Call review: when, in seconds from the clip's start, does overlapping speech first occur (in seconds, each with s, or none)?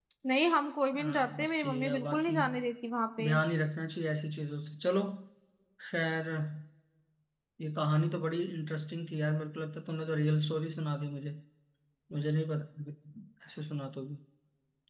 0.9 s